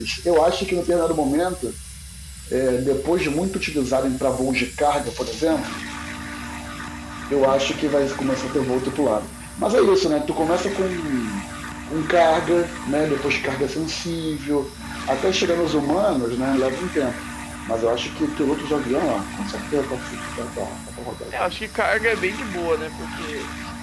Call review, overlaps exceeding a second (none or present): none